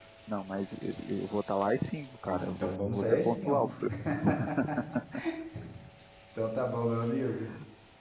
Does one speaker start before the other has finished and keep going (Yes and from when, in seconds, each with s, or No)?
Yes, from 2.2 s